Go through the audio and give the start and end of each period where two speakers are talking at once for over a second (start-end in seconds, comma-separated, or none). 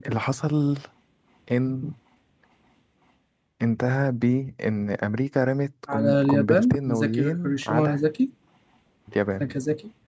5.9-8.0